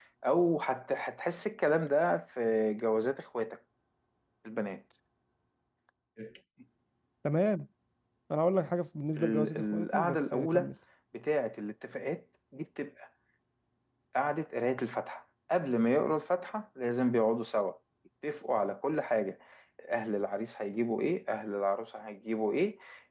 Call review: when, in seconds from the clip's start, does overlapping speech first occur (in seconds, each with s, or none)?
9.2 s